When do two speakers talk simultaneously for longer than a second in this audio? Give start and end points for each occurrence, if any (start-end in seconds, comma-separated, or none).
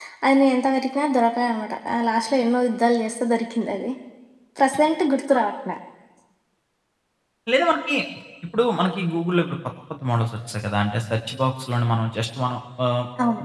none